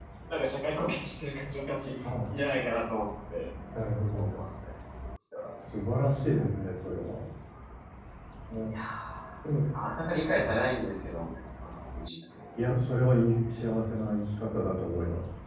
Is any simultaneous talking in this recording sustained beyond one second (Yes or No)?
No